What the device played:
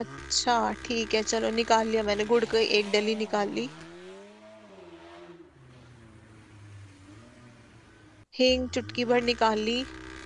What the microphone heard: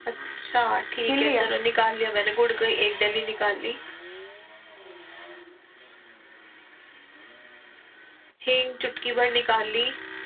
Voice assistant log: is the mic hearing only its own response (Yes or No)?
No